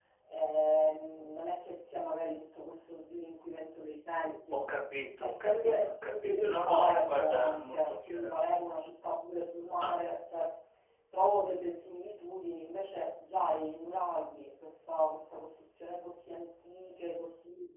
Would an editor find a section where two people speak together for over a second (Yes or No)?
Yes